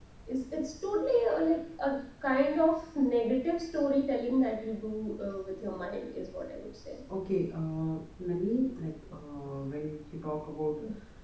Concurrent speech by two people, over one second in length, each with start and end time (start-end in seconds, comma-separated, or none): none